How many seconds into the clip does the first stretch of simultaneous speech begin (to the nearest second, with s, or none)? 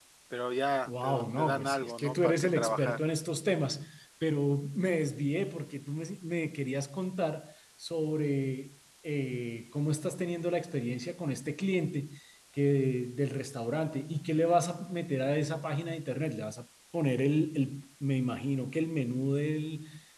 1 s